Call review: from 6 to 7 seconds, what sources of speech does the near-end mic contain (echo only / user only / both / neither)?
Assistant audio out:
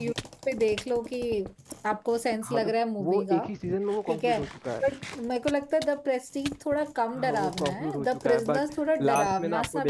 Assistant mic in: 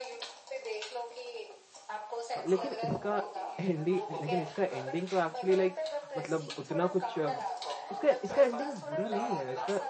both